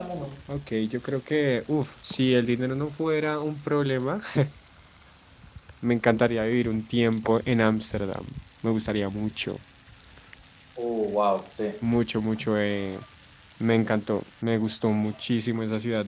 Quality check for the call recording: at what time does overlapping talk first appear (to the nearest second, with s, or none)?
none